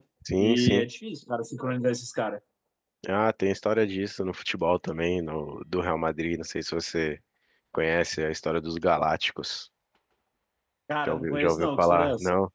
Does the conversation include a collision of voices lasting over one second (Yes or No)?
Yes